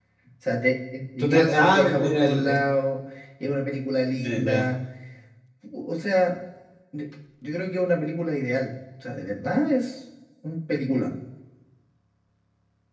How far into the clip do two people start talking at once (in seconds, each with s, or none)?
1.2 s